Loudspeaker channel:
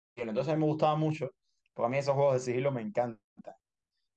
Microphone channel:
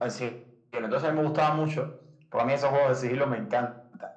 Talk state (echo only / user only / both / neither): echo only